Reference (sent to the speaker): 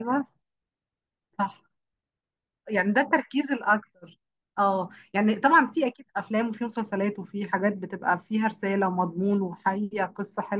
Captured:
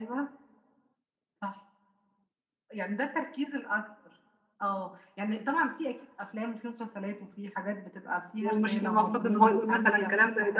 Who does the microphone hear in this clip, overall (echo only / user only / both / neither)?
both